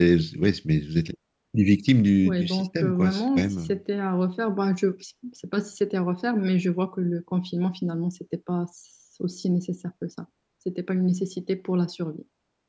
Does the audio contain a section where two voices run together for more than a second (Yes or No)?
Yes